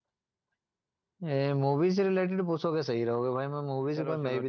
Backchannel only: No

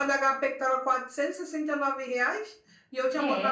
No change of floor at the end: Yes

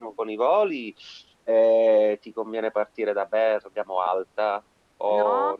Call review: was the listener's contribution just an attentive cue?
No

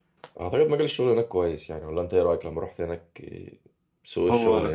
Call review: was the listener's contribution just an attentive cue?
No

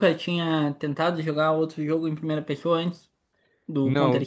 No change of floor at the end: No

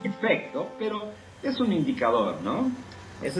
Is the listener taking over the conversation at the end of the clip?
Yes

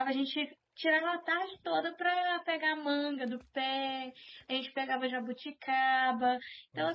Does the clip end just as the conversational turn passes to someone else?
No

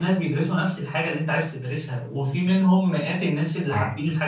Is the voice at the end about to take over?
No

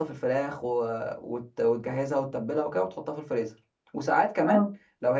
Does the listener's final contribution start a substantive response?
No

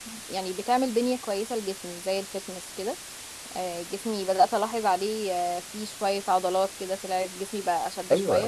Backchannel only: No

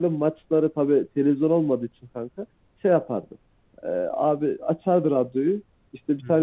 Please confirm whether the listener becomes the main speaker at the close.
No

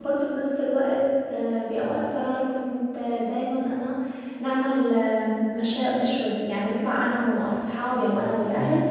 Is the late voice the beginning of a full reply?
No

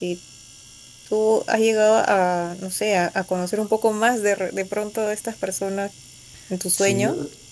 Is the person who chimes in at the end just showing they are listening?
No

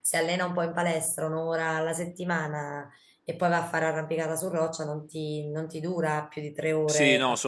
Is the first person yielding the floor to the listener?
Yes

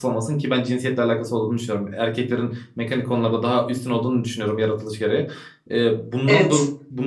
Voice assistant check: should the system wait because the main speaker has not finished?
Yes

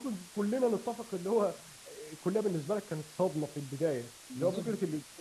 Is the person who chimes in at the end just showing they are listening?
Yes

